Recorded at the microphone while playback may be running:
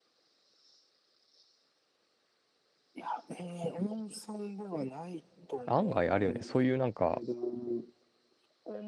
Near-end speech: present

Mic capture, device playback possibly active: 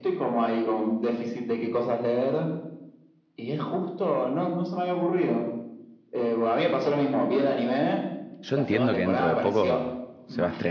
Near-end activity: present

